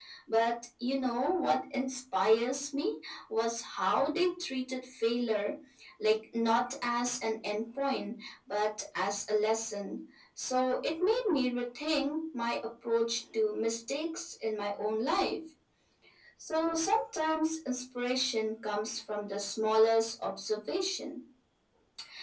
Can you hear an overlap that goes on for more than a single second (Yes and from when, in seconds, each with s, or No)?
No